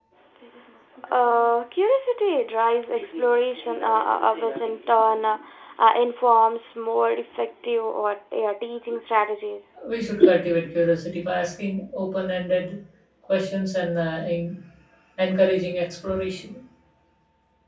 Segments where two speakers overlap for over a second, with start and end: none

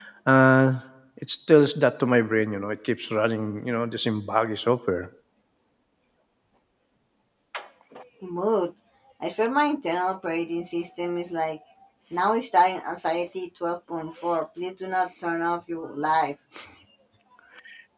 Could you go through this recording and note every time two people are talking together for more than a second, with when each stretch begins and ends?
none

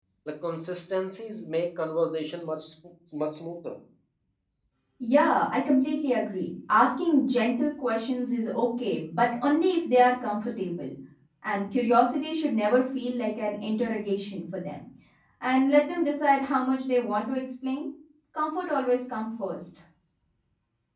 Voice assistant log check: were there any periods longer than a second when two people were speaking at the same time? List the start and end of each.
none

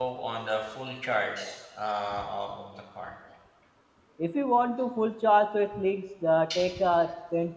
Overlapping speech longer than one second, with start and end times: none

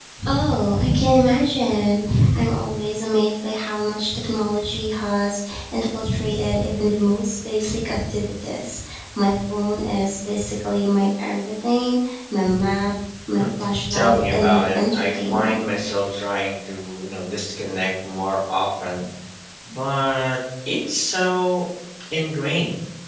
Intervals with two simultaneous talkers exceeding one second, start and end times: 13.9-15.6

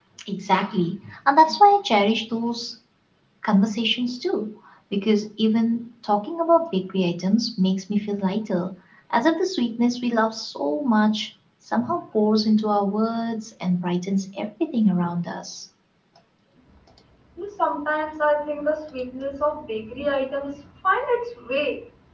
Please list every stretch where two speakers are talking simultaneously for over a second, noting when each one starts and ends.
none

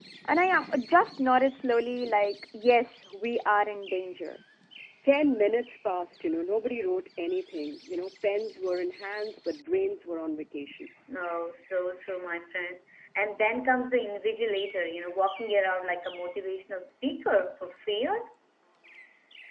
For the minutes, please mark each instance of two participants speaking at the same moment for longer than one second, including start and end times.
none

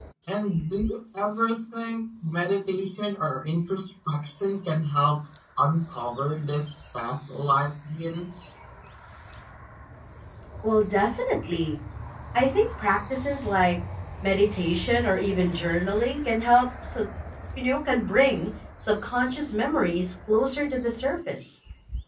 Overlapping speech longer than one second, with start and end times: none

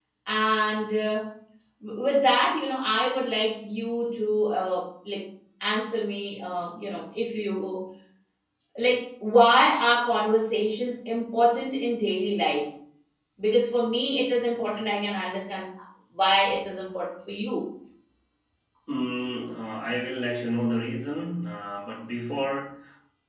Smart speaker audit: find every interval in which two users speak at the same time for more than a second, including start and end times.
none

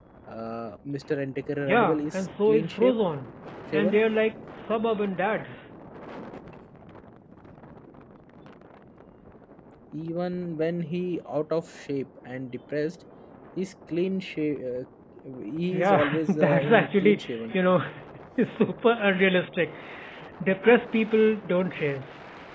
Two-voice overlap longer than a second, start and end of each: 1.6-3.0, 15.7-17.4

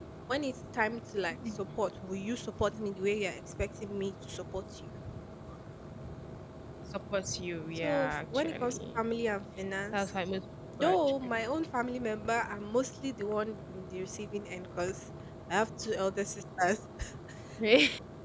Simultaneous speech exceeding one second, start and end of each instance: 7.8-9.0

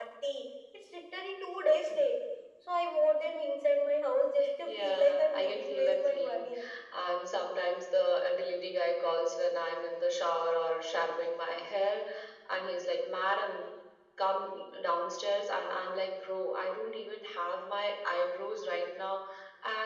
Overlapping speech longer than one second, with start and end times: 4.7-6.4

